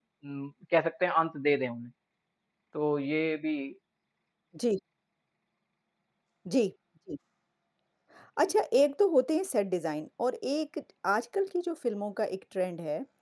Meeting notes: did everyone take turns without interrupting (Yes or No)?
Yes